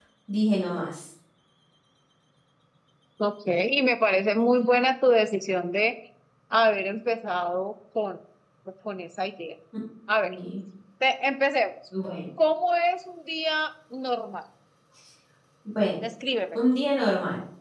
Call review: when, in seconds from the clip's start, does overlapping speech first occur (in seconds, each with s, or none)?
none